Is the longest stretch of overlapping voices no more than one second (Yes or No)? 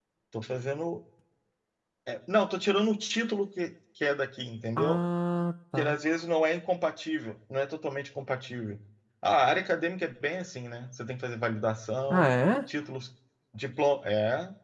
Yes